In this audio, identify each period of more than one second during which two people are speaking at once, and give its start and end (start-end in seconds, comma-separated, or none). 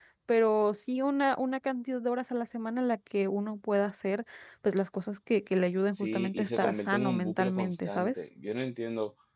5.9-8.1